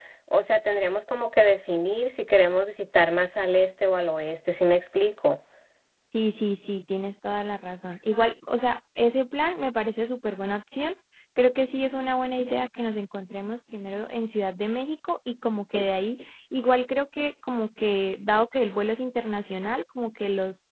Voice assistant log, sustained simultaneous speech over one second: none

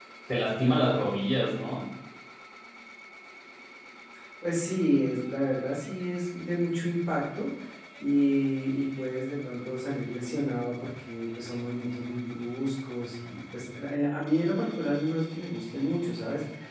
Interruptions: none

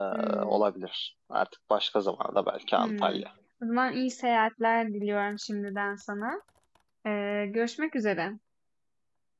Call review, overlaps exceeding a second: none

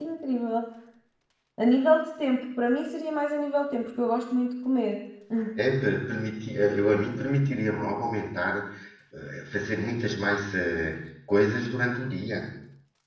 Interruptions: none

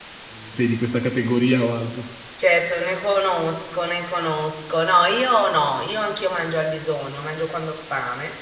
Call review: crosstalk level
none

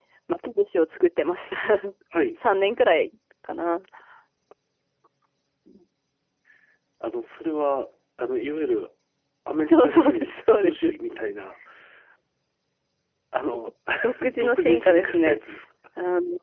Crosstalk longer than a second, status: present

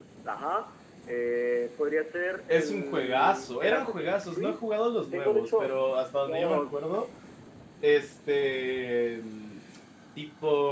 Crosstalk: present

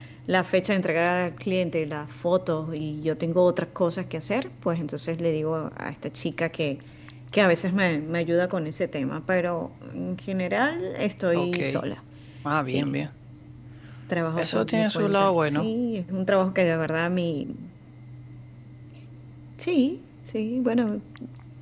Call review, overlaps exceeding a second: present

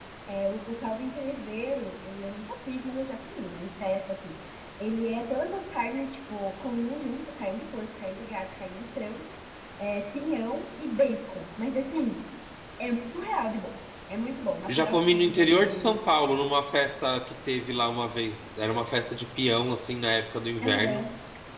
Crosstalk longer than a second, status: present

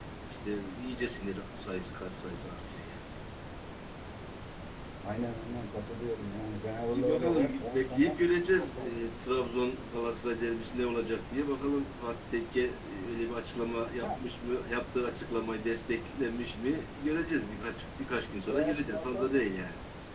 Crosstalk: present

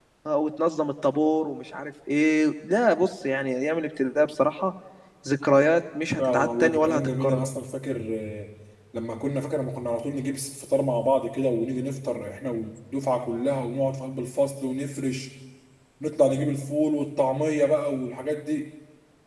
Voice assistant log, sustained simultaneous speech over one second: present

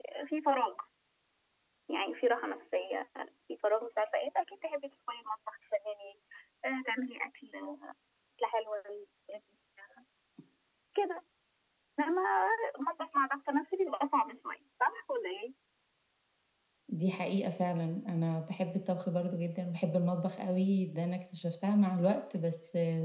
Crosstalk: none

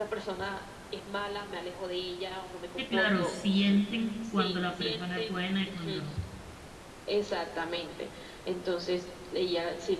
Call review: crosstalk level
present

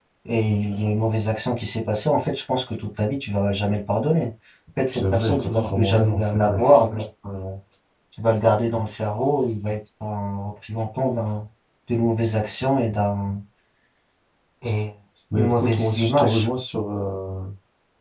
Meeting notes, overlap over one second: present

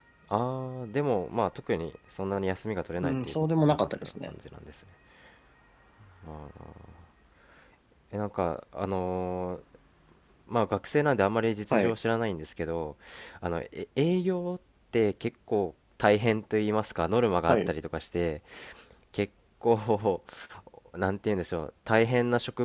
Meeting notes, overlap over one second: present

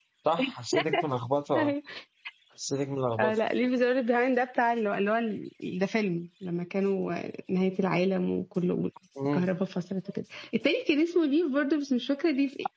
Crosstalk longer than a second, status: none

